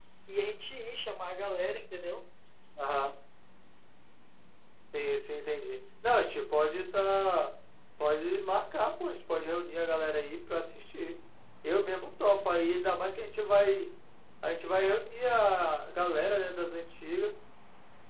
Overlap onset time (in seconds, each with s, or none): none